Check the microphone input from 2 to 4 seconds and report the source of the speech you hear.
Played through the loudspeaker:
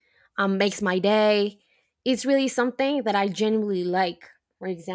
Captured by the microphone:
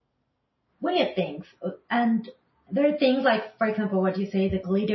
user only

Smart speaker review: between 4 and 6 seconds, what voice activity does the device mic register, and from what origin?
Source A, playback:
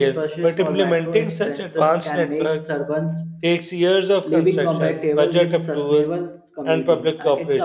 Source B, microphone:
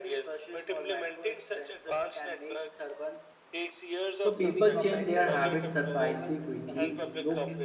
both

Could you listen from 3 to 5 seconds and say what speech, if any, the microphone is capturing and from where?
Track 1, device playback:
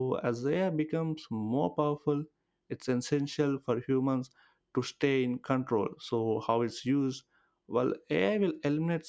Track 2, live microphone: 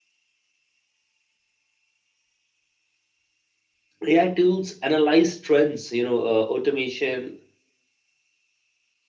user only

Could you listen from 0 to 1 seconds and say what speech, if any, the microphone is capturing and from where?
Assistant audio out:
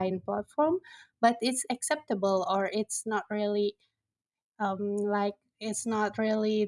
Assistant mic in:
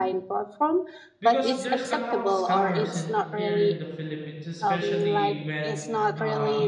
echo only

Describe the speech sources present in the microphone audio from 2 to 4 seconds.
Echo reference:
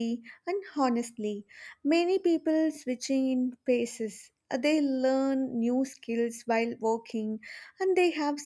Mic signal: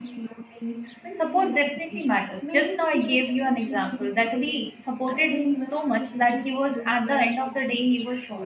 both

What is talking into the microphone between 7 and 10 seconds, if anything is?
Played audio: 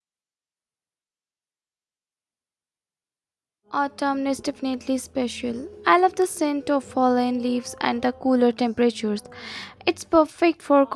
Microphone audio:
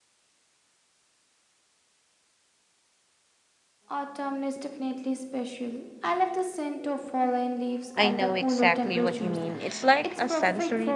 both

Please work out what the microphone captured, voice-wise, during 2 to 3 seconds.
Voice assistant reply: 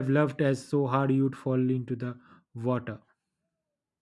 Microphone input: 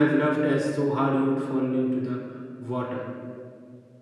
echo only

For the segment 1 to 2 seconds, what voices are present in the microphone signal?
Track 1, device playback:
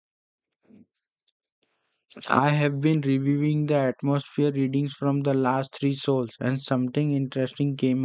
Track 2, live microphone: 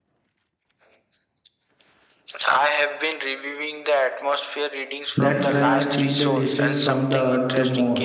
neither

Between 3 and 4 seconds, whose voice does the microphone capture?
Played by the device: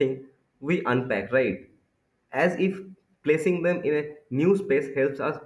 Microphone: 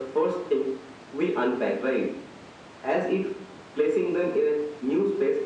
echo only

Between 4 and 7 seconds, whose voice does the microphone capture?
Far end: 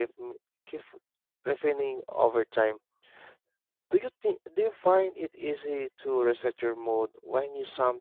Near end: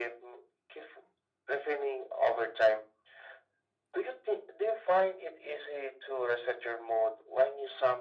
echo only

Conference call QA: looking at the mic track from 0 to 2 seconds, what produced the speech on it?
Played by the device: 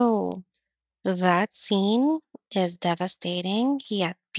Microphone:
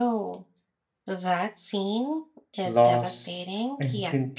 echo only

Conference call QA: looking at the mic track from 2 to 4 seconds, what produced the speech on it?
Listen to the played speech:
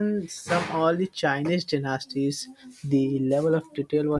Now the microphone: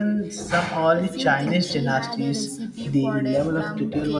both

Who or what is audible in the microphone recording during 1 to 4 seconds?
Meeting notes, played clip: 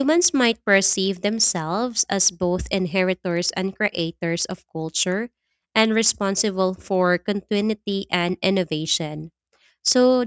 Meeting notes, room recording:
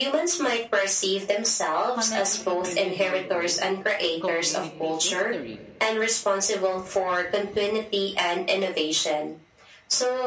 both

